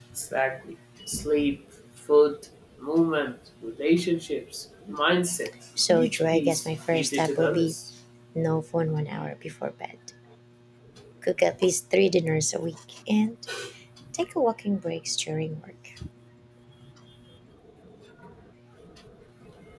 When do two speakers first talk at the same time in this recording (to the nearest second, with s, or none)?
6 s